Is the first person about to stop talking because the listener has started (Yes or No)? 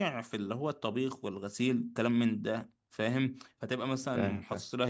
No